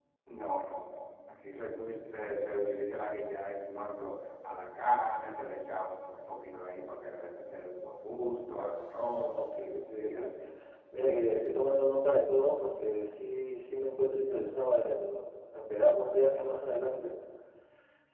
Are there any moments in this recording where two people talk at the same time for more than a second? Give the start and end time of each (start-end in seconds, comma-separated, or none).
none